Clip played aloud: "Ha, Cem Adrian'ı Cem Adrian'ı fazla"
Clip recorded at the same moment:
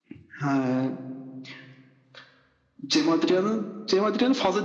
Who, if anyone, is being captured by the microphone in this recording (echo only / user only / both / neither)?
echo only